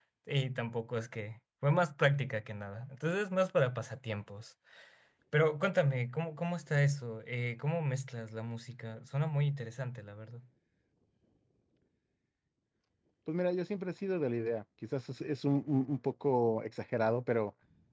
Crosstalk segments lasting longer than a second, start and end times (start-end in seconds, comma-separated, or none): none